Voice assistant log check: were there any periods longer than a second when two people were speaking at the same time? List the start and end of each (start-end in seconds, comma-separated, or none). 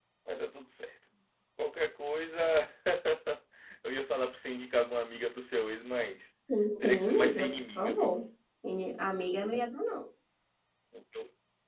6.8-8.1